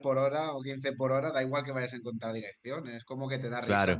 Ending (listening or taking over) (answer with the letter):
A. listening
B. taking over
A